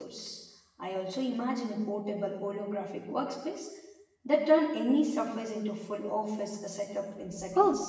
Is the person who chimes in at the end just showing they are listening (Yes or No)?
No